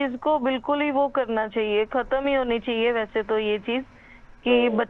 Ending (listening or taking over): listening